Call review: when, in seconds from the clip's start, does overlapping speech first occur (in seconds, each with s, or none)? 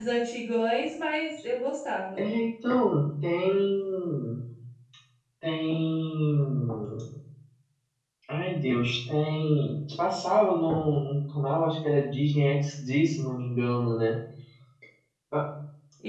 none